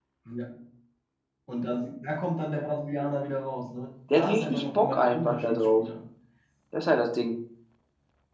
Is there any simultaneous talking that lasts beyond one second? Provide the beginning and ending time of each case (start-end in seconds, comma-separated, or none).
4.1-5.8